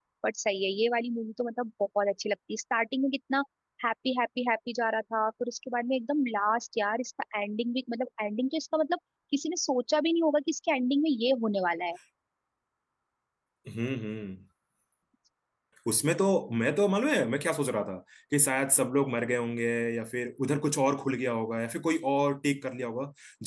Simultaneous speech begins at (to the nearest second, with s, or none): none